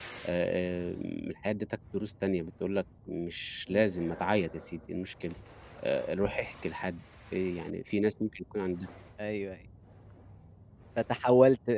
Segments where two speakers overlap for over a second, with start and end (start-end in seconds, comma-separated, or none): none